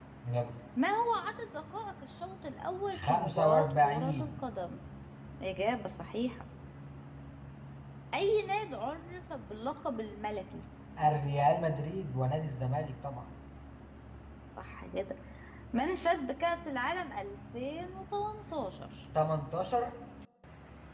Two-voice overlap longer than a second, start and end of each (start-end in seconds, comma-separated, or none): 2.9-4.3